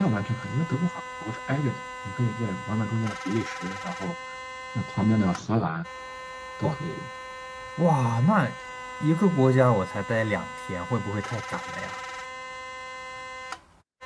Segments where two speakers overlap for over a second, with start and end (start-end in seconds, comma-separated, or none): none